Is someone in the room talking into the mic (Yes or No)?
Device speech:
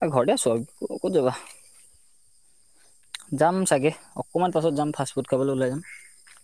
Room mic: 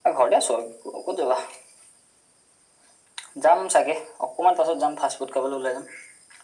No